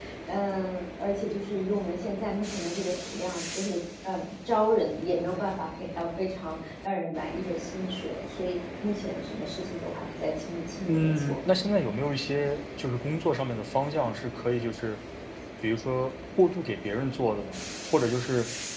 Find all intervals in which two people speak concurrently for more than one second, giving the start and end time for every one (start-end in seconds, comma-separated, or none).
none